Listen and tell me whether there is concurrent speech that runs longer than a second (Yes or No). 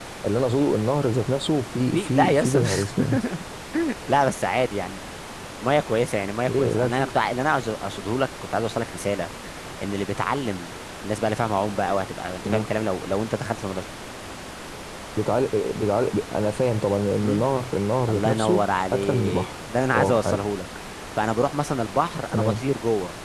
Yes